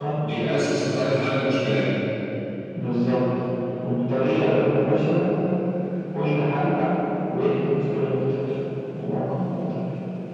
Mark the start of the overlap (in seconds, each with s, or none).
none